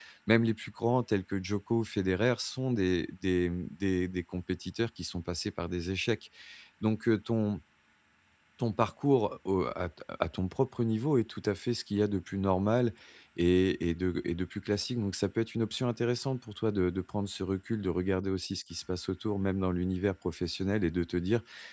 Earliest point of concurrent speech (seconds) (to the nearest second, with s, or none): none